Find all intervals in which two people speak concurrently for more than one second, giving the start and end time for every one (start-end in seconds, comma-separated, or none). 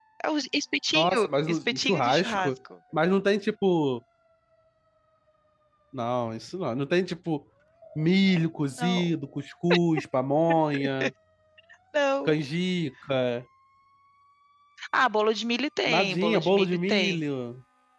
0.9-2.5, 15.9-17.2